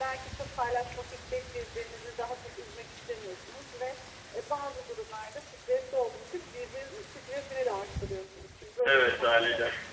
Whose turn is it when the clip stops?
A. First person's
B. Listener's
A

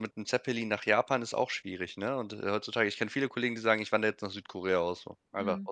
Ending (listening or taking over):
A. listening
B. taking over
B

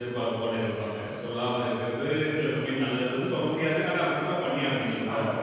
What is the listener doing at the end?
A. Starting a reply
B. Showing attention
A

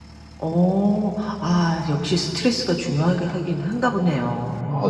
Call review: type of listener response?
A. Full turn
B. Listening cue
A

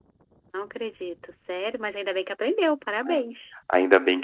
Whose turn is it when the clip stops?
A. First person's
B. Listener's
B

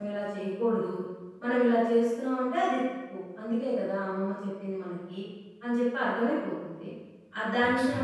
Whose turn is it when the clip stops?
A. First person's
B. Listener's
A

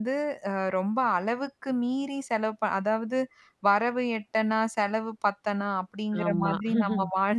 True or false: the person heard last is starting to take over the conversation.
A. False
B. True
A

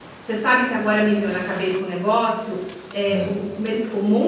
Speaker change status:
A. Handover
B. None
B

